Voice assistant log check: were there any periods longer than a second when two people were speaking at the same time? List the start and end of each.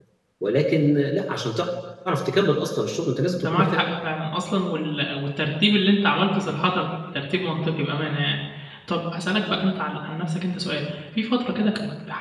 none

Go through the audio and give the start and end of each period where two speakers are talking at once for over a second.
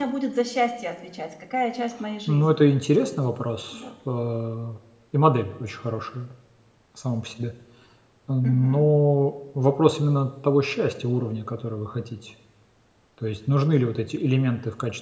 none

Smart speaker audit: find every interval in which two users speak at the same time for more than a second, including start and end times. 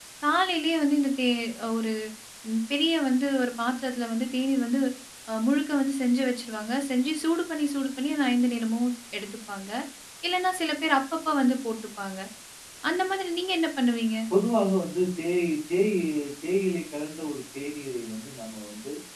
none

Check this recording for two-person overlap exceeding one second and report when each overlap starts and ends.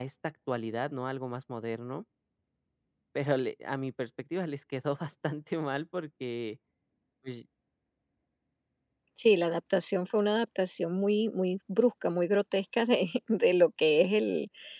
none

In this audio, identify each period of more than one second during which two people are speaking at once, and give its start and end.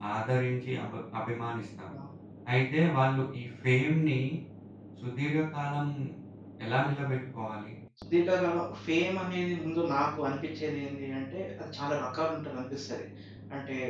none

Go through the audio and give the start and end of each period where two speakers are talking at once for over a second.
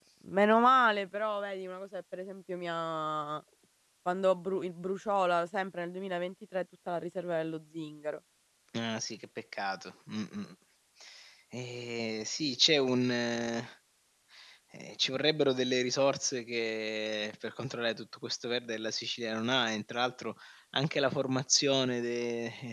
none

